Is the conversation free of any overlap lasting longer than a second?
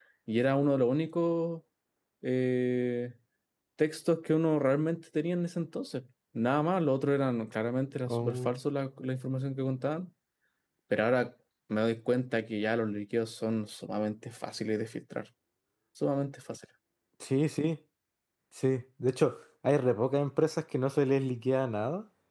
Yes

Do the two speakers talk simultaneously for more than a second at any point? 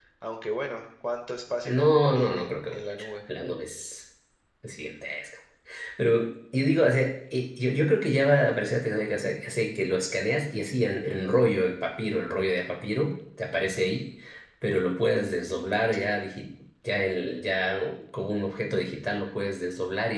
Yes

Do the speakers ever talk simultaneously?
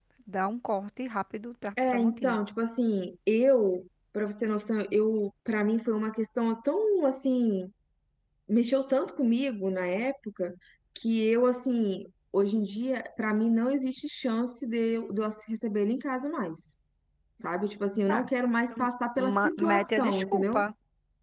Yes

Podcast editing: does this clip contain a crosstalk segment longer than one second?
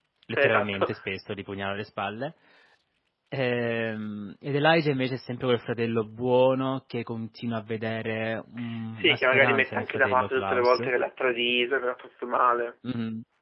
Yes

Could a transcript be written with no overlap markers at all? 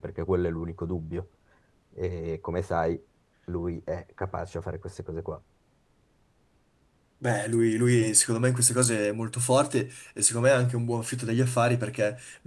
Yes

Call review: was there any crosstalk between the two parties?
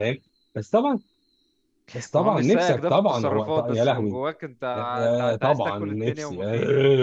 Yes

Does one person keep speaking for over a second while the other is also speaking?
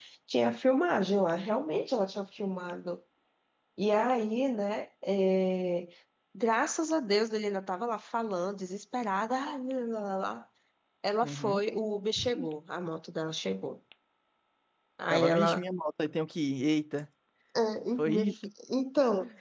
No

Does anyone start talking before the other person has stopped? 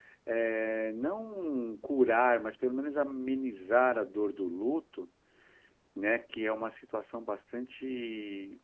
No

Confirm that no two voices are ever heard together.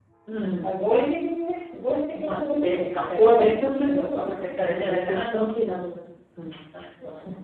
No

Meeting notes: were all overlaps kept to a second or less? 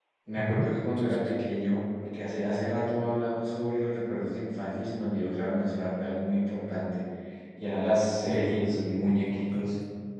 No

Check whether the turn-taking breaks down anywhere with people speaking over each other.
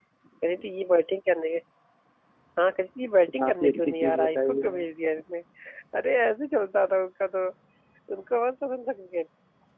Yes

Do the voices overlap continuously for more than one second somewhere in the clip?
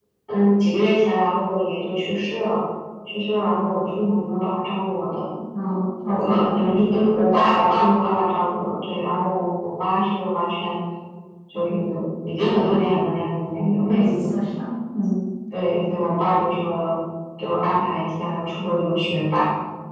Yes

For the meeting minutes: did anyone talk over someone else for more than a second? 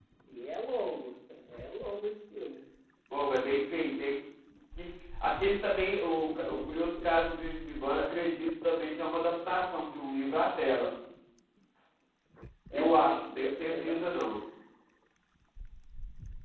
Yes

